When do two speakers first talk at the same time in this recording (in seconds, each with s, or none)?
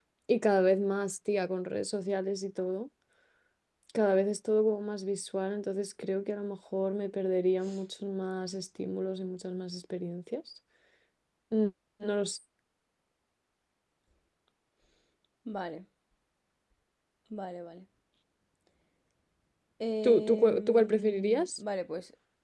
20.0 s